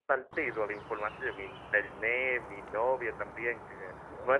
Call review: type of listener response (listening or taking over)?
listening